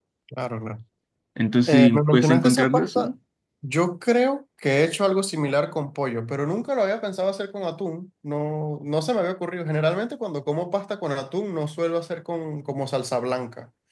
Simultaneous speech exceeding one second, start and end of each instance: 1.7-3.1

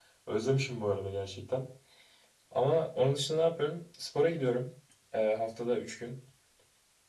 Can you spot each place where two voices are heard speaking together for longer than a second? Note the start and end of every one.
none

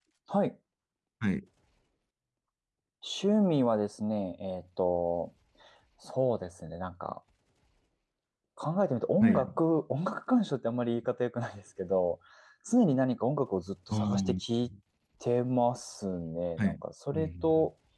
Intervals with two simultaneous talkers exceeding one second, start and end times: none

